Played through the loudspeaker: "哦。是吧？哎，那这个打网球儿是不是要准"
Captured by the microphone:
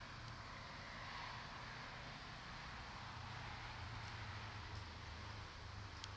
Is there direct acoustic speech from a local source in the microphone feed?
No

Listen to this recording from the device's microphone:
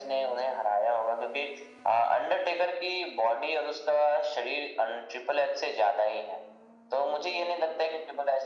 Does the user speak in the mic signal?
No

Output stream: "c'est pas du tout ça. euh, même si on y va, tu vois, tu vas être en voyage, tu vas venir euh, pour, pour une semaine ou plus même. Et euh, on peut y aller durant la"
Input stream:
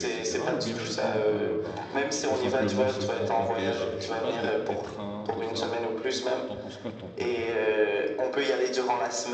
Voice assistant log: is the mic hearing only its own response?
No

